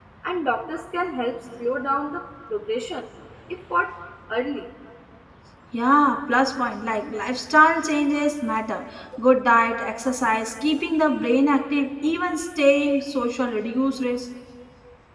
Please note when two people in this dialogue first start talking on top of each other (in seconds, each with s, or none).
none